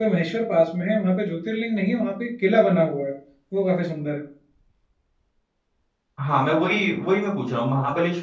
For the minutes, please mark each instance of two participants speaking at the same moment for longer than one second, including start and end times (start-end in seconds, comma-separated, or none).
none